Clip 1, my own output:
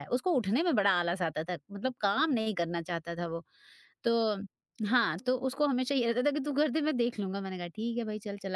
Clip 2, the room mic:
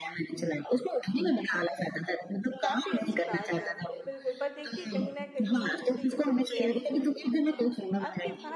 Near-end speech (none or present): present